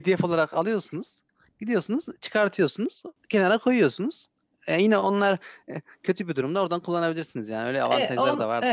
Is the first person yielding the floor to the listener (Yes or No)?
Yes